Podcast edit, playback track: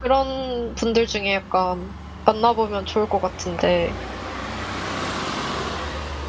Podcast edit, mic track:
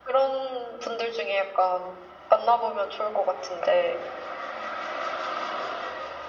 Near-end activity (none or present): none